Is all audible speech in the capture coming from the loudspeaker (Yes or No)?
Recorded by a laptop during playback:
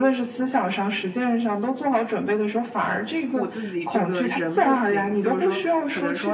No